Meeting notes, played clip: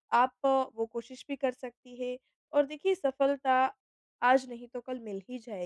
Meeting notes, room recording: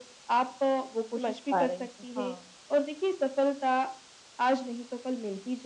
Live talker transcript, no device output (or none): समझ पा रही हूँ। हाँ।